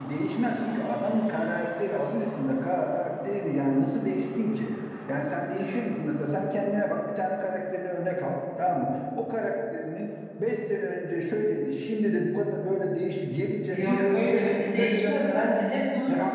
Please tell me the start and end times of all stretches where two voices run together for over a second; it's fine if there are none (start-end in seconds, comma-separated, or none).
13.7-15.5